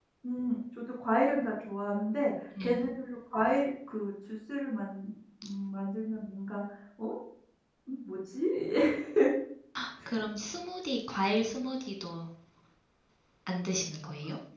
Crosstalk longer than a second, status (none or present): none